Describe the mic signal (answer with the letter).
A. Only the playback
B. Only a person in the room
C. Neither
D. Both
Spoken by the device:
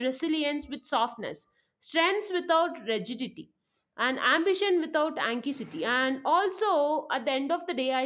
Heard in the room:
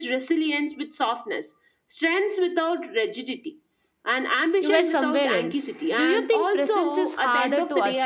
D